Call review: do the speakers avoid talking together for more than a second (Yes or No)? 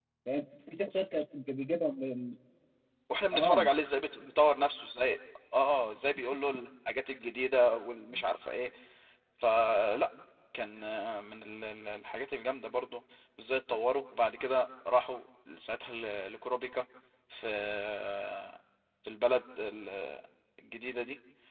Yes